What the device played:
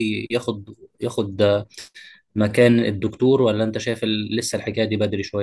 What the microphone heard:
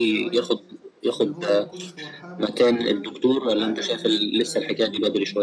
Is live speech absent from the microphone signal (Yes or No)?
No